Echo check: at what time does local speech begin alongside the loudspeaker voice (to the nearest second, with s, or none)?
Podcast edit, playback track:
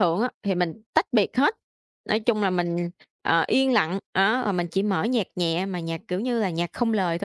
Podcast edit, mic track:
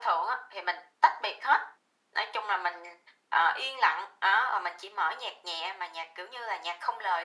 none